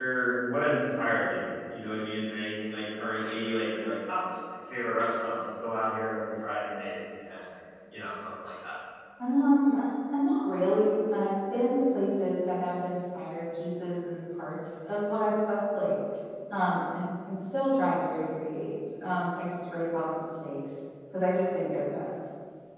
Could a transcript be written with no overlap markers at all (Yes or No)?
Yes